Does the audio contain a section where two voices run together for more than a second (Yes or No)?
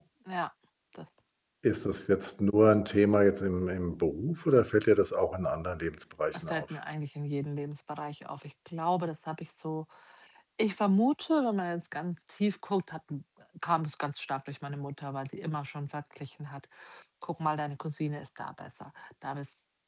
No